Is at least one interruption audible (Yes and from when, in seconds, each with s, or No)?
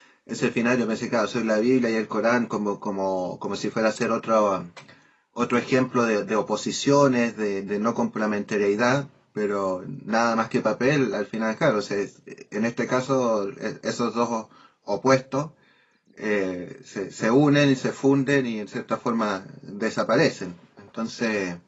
No